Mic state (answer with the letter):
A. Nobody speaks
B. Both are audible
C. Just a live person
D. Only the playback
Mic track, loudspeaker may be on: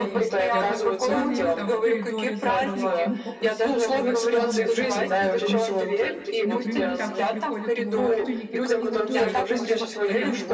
B